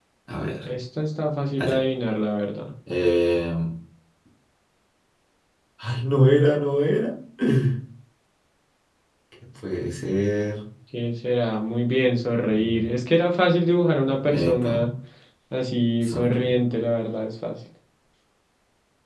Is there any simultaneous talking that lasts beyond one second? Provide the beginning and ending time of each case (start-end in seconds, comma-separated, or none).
none